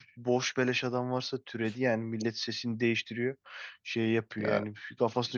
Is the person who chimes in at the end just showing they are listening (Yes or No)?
Yes